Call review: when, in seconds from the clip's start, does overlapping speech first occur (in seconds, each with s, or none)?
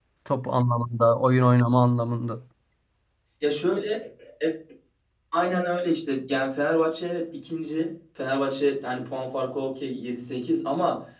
none